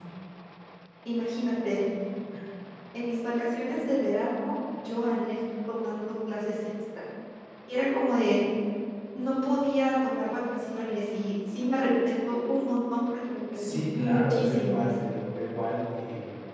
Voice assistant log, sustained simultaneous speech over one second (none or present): present